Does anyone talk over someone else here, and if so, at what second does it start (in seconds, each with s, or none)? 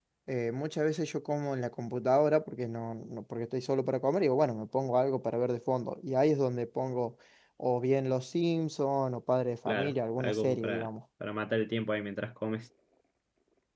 9.7 s